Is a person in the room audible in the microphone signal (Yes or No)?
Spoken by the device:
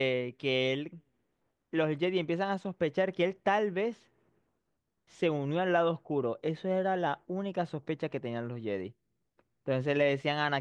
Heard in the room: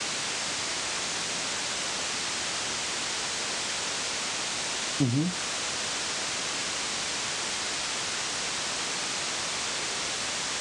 Yes